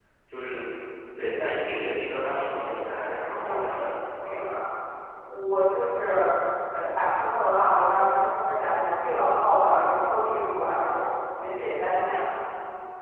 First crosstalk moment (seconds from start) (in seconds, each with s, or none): 3.2 s